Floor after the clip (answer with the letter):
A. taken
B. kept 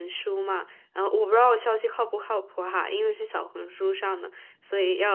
B